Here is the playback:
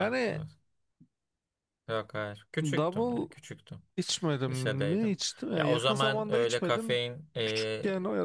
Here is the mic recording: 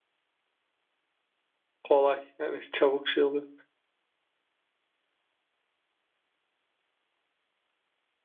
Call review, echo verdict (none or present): none